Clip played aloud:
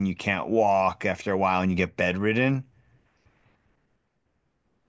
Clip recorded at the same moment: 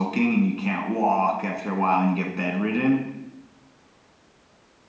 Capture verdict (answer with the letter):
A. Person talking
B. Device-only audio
B